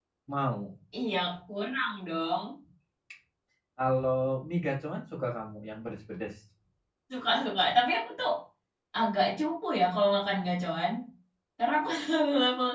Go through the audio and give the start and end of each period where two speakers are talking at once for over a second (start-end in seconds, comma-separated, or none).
none